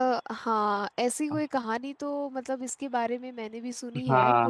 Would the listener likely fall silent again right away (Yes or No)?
No